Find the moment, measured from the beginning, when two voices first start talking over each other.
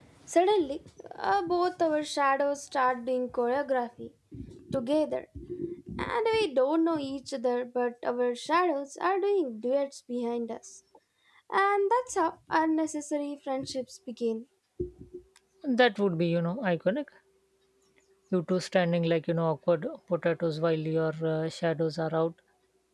none

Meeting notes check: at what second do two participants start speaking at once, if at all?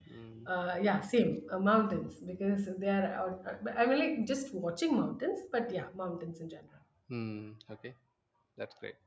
none

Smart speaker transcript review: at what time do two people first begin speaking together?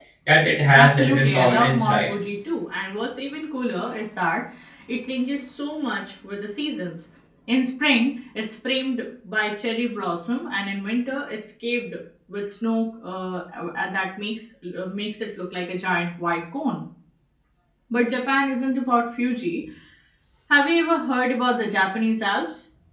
0.8 s

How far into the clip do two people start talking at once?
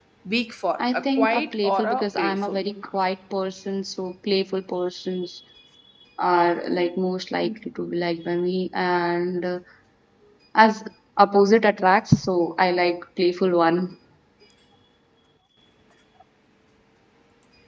0.8 s

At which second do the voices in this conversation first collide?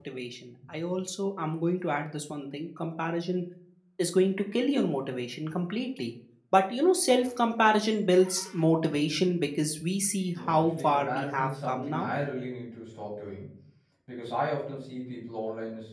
10.3 s

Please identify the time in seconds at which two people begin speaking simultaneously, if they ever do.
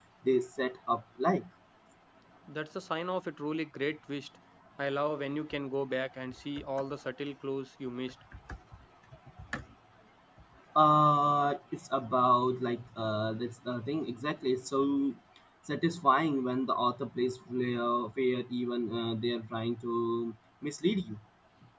none

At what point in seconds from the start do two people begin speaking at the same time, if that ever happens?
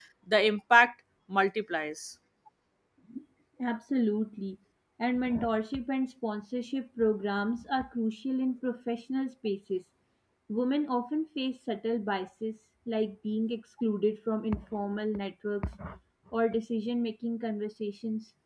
none

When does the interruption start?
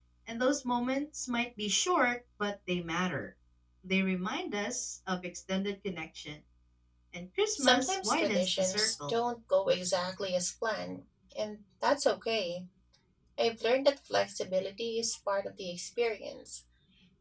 7.6 s

